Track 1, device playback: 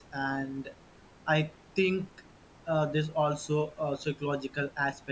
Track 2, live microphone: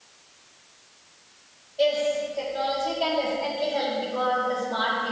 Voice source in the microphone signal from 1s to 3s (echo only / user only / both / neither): user only